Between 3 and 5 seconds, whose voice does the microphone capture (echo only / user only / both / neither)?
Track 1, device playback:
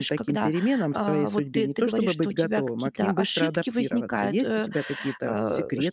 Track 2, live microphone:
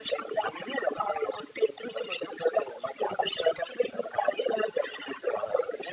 echo only